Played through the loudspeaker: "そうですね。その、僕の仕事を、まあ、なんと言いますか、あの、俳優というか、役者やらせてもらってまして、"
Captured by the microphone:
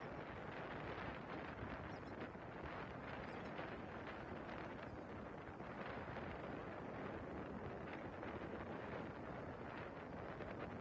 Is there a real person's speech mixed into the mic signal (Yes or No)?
No